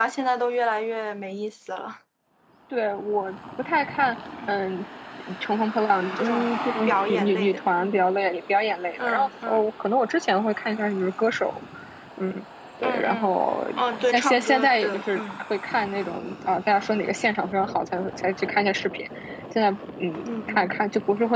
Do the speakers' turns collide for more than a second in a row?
Yes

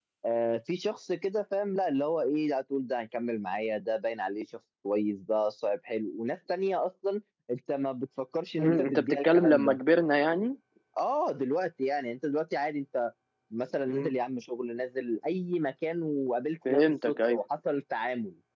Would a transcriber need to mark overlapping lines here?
Yes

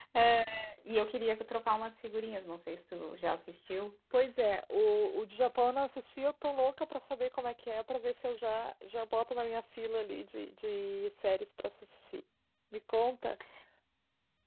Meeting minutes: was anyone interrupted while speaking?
No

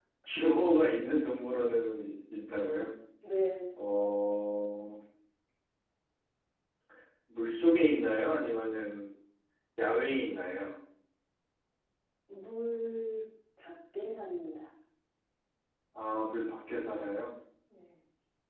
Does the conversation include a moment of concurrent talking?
No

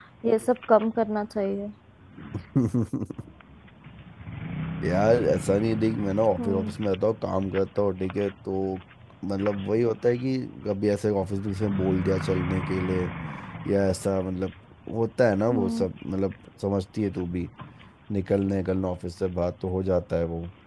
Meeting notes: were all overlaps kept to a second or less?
Yes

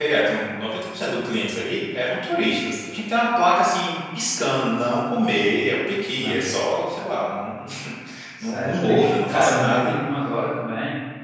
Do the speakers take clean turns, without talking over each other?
No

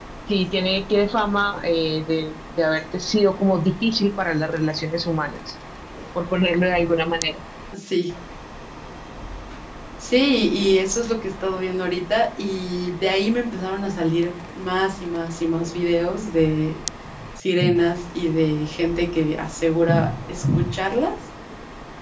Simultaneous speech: No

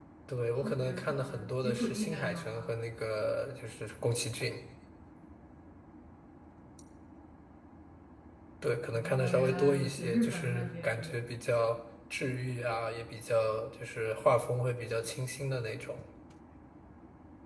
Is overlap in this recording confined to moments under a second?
No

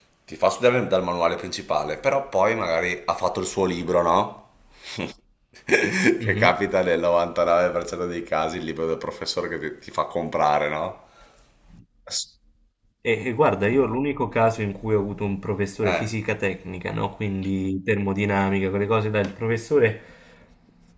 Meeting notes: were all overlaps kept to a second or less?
Yes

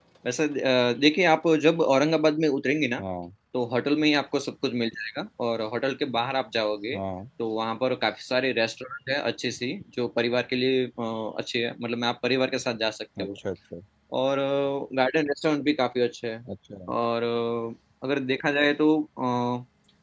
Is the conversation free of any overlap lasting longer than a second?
Yes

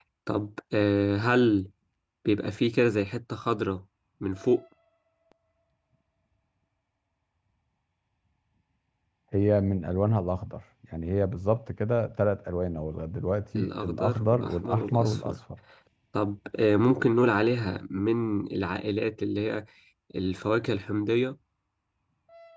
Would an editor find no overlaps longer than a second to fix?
No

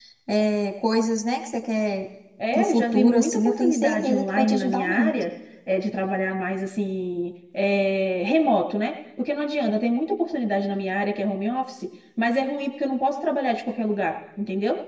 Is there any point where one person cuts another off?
Yes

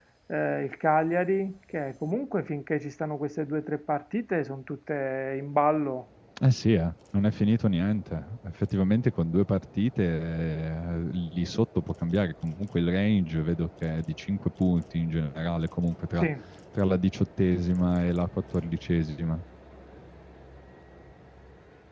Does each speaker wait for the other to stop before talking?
Yes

